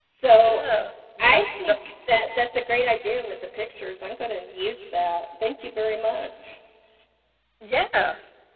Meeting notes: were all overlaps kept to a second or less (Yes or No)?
Yes